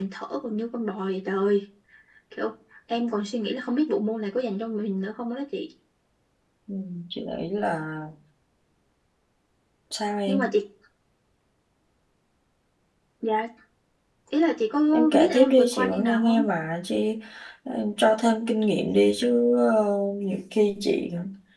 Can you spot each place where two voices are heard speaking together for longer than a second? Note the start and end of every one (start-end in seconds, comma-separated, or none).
14.9-16.4